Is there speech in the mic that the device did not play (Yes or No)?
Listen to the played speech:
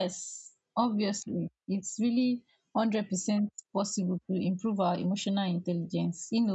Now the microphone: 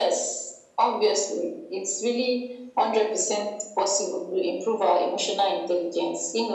No